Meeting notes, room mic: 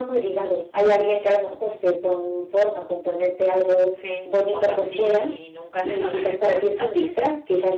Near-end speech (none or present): present